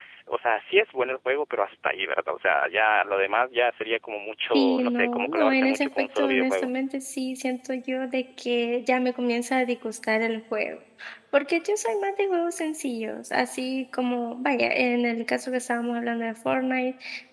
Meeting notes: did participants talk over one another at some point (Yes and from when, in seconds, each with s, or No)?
Yes, from 4.5 s